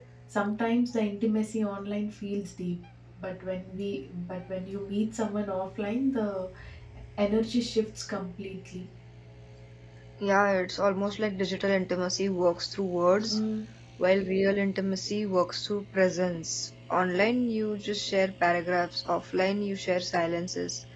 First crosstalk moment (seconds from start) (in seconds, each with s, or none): none